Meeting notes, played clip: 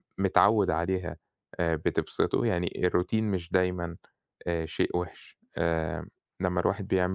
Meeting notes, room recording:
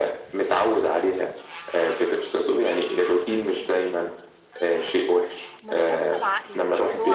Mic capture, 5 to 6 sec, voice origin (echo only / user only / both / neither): both